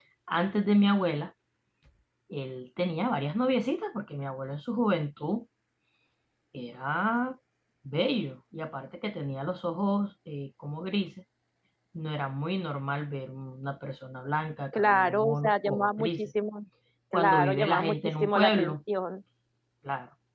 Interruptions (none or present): present